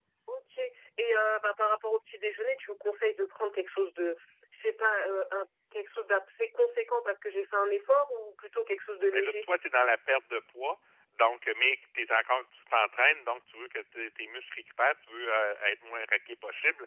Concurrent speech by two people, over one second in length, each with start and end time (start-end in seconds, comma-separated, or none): none